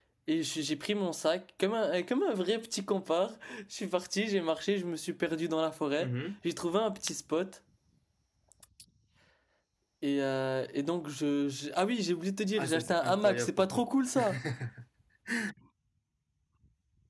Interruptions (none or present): present